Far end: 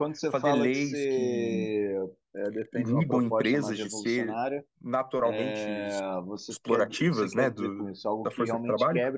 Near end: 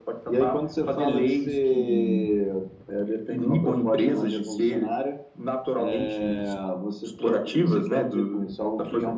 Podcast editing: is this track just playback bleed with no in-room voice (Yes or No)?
Yes